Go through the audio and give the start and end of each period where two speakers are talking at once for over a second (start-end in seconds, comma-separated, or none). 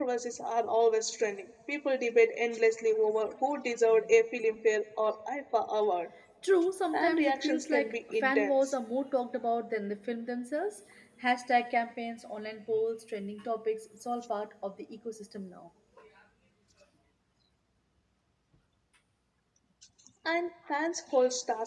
6.9-8.5